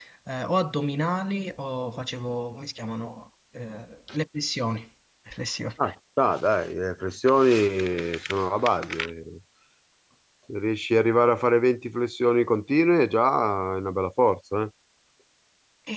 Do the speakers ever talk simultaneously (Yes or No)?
No